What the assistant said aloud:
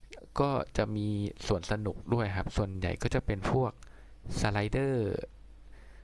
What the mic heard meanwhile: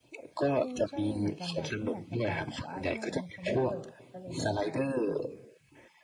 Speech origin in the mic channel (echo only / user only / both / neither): both